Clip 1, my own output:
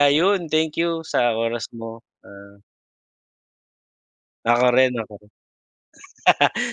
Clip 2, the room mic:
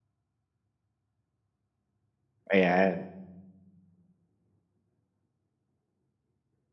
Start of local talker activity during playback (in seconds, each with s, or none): 2.5 s